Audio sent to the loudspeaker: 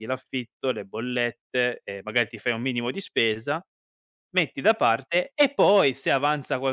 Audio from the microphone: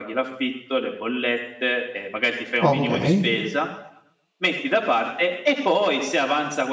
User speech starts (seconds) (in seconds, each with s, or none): 2.6 s